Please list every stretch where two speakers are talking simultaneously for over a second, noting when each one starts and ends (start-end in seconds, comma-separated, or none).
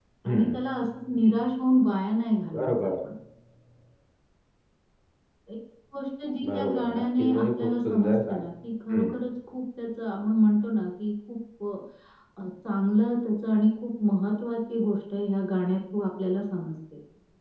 6.4-8.4